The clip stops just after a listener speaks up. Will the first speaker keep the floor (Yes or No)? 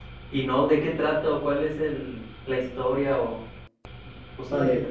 No